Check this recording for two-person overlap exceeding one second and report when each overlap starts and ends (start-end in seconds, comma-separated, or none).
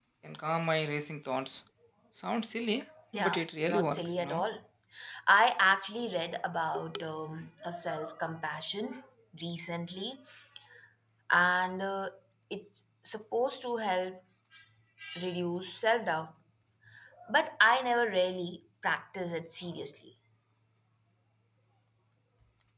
3.1-4.4